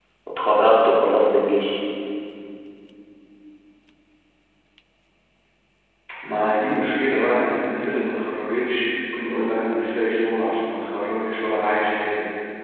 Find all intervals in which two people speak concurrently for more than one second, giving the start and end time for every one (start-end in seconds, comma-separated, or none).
none